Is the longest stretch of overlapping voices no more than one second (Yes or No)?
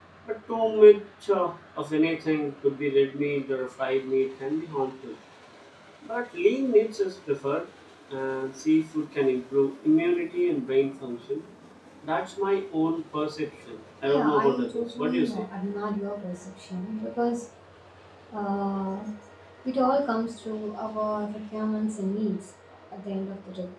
No